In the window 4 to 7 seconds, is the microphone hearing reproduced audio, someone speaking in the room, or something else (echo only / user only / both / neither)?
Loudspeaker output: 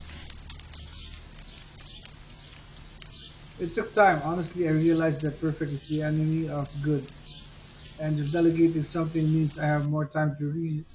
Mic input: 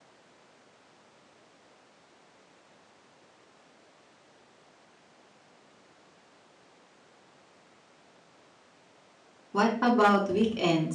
neither